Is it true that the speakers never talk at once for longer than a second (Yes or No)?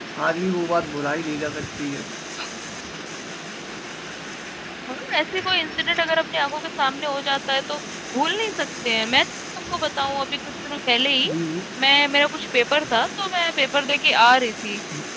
Yes